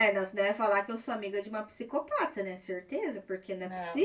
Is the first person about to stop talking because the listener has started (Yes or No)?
Yes